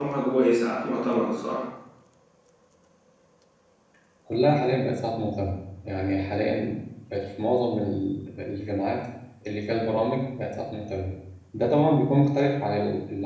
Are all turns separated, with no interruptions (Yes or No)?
Yes